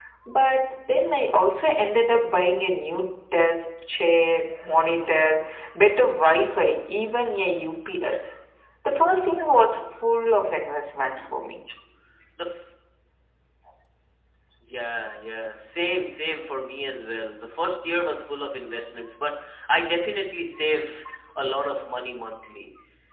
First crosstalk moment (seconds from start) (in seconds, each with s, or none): none